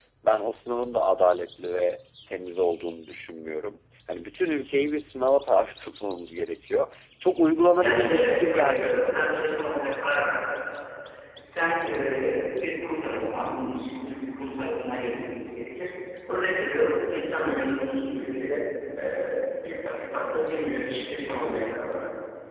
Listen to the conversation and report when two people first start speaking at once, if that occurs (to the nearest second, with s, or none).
8 s